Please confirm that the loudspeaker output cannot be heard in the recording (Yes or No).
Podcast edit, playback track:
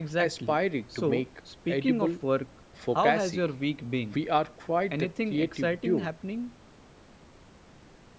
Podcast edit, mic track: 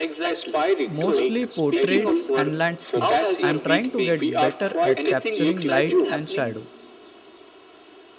No